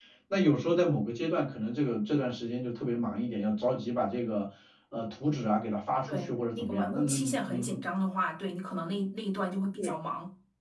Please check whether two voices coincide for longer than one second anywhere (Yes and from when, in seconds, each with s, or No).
Yes, from 6.1 s